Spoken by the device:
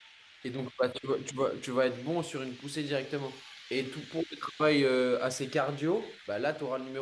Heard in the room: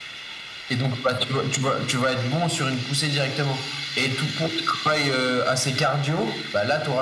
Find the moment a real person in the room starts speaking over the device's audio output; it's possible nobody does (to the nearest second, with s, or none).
none